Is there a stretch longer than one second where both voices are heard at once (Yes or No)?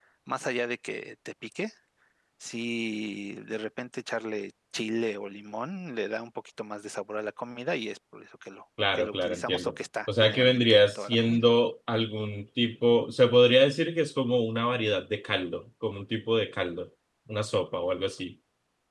Yes